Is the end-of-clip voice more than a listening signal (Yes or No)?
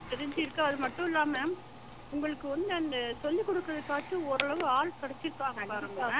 Yes